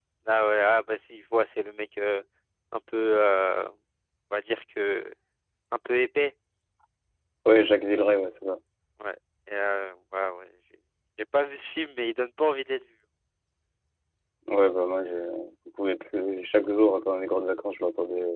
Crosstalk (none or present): none